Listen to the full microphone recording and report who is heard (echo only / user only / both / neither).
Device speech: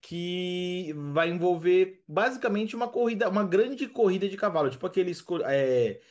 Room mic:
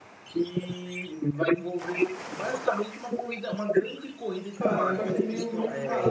both